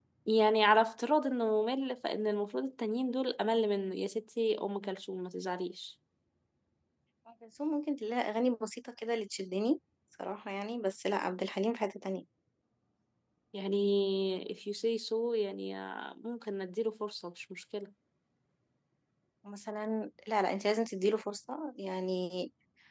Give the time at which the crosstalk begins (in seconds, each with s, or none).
none